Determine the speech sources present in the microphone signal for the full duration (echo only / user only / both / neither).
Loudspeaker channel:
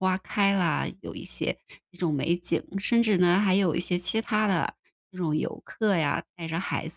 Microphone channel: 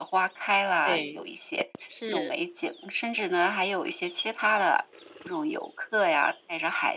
both